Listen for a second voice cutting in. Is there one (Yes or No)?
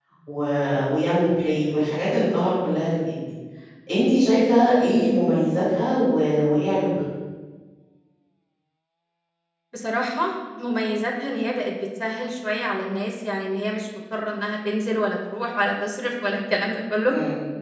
No